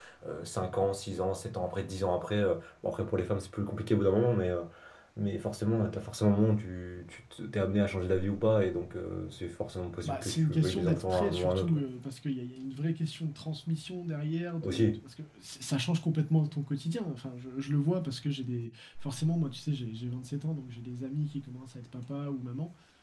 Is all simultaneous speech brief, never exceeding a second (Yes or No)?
No